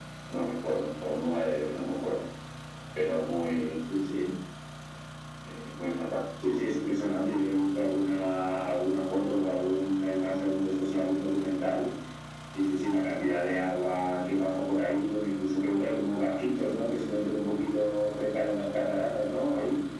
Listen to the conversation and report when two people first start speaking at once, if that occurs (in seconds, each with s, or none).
none